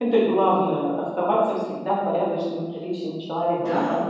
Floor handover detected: Yes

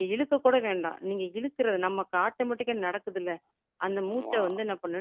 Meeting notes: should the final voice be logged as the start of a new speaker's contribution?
No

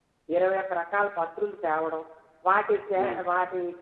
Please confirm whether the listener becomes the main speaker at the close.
No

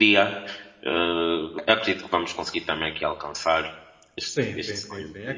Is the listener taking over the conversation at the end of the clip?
Yes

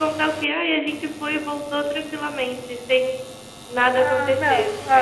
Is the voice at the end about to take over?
Yes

